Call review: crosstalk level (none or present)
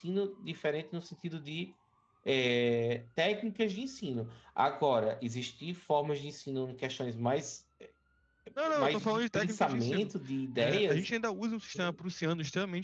present